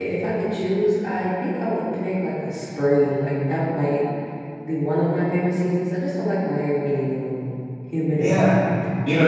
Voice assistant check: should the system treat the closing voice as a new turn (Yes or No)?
Yes